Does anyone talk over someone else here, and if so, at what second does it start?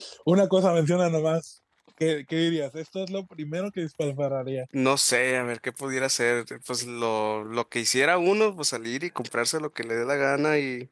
none

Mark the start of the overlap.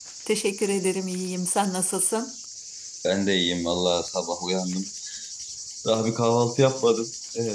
none

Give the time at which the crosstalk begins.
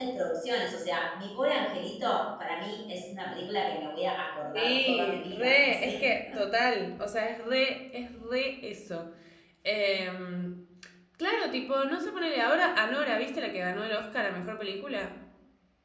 5 s

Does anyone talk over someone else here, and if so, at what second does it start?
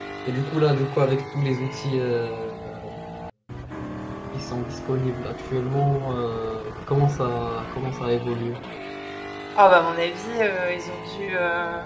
none

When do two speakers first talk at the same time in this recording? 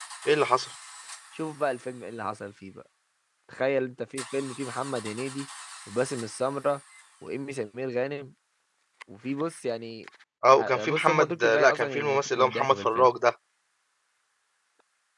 11 s

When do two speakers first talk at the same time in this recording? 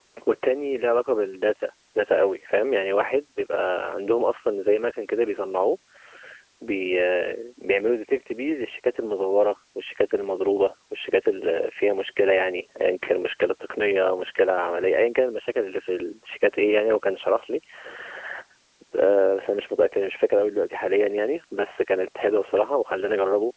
none

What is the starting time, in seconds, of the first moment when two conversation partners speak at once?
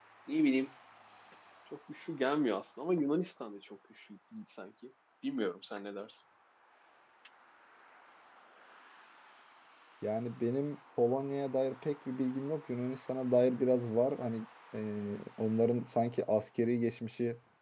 none

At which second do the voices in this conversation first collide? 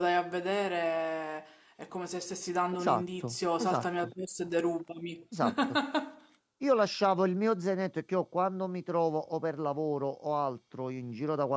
3 s

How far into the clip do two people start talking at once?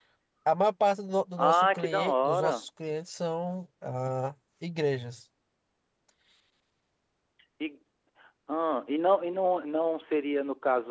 1 s

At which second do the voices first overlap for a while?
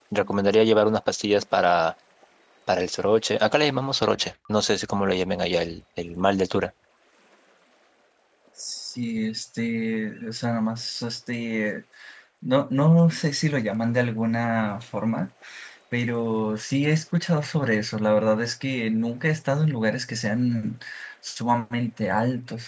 none

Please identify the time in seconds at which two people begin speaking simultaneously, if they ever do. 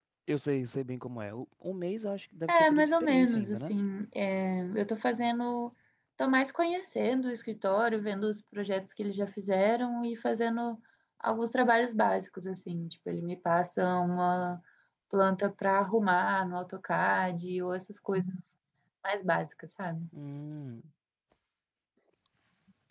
2 s

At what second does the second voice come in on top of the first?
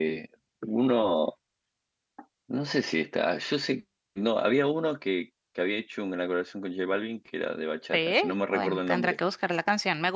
8 s

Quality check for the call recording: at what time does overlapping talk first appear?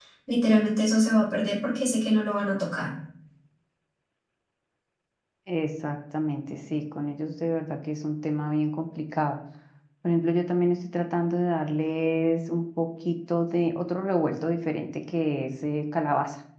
none

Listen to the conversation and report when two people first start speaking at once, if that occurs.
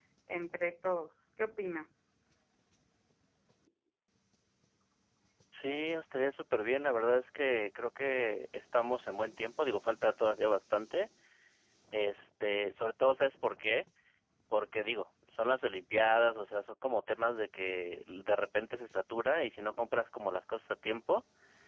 none

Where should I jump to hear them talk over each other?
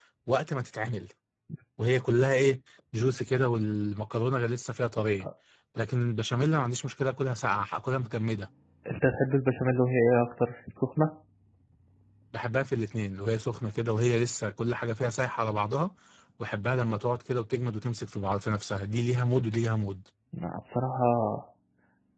none

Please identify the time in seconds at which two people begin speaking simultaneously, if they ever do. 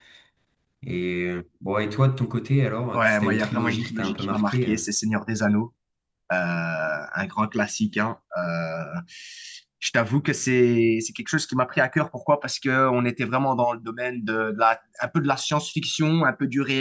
3 s

